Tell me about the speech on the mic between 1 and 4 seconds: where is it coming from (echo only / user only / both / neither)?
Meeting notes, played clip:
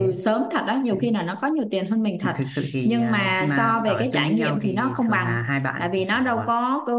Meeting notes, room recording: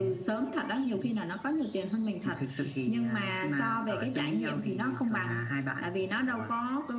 echo only